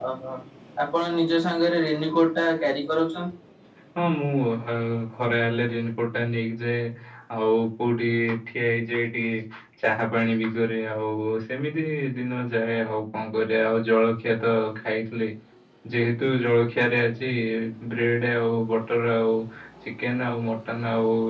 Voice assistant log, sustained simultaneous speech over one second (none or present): none